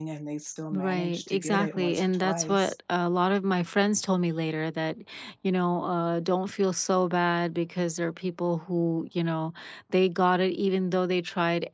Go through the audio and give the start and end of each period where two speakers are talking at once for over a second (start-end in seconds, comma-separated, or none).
0.7-2.8